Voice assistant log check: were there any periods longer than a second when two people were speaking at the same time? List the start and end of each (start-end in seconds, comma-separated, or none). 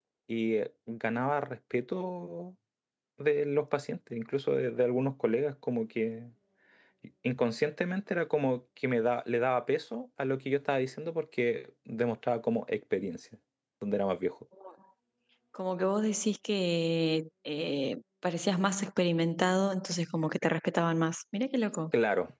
none